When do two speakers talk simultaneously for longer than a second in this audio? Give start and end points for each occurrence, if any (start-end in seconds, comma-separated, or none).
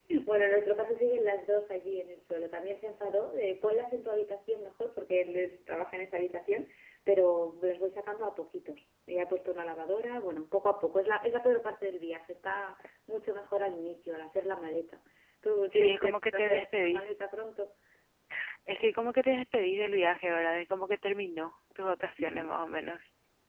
15.7-17.2